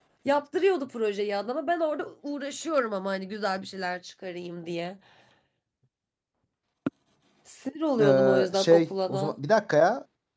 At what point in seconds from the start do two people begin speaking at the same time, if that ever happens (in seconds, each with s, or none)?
8.0 s